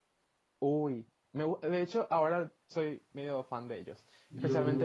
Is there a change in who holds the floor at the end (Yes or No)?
No